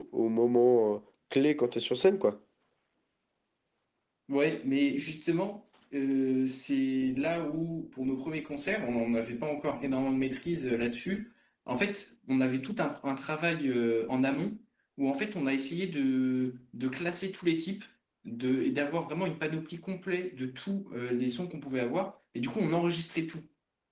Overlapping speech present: No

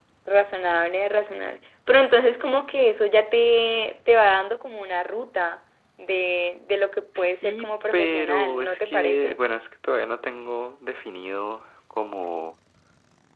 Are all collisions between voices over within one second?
No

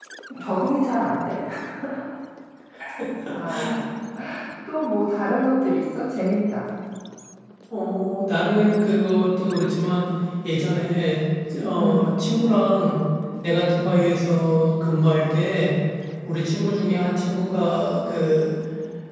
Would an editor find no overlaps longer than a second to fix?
Yes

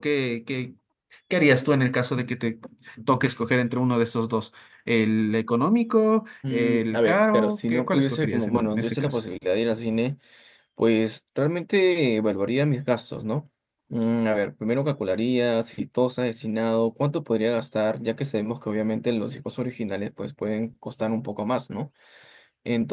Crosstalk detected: Yes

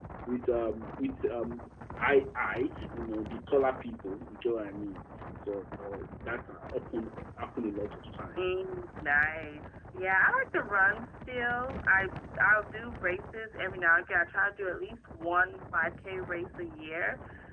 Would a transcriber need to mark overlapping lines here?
No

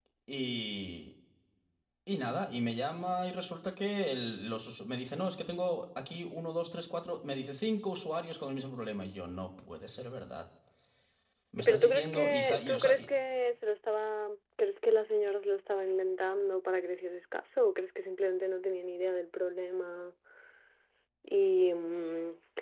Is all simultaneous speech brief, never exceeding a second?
No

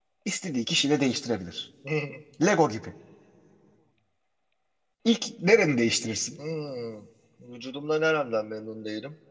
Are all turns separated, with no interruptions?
Yes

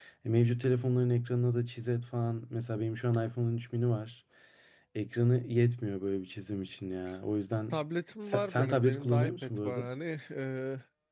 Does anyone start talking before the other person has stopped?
Yes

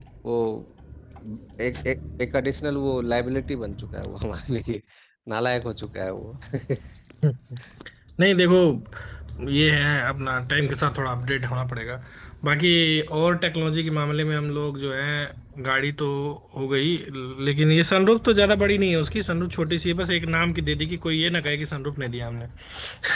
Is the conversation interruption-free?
Yes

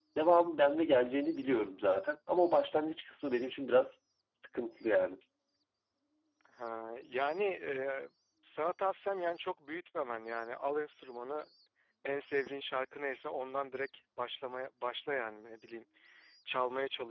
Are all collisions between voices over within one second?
Yes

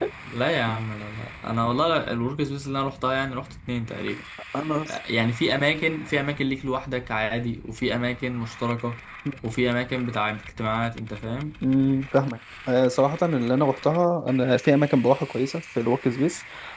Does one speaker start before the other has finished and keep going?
No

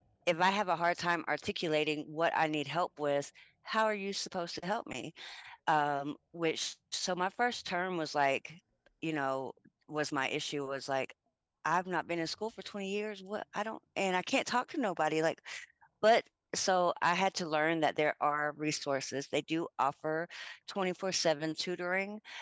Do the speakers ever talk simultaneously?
No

